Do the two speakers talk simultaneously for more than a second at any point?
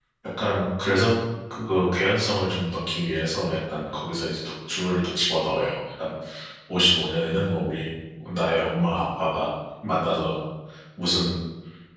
No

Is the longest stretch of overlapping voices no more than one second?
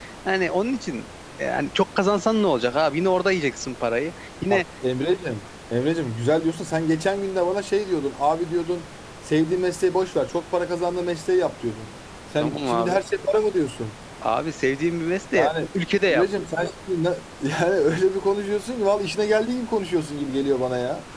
Yes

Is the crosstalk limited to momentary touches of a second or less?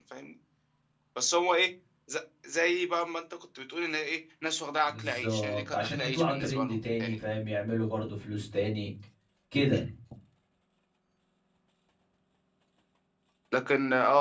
No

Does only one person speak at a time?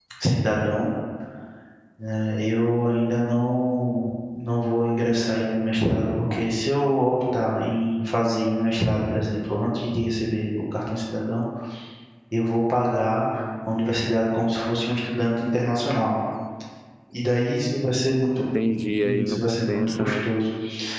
No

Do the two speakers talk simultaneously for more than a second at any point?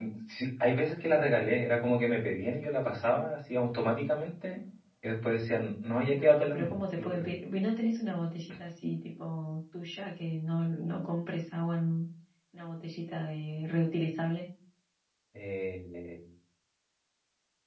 Yes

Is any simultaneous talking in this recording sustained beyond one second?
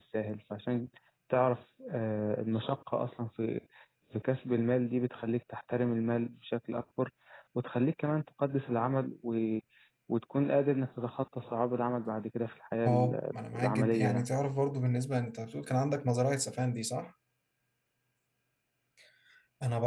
Yes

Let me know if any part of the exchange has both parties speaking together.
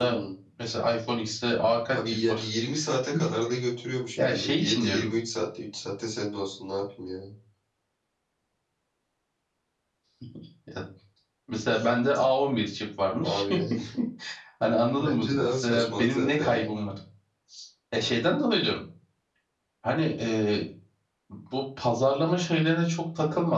Yes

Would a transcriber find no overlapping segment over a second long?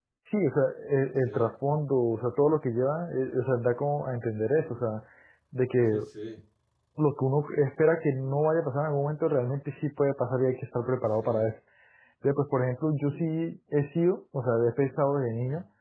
Yes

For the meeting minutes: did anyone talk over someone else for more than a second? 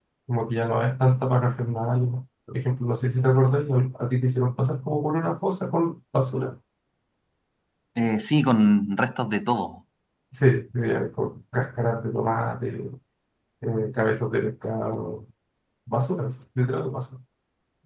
No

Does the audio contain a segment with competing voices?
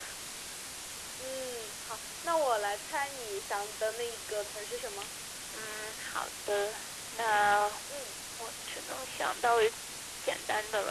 No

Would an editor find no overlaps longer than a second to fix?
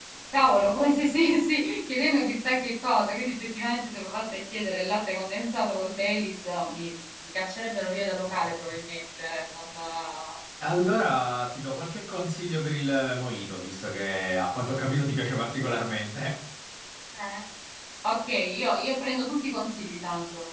Yes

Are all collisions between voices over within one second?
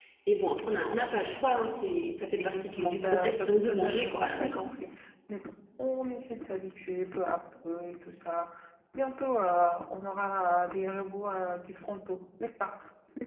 No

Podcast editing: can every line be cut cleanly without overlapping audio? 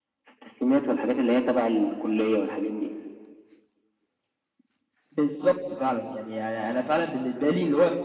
Yes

